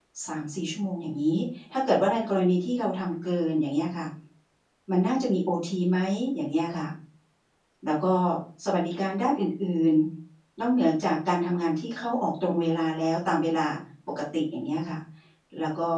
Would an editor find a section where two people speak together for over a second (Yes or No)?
No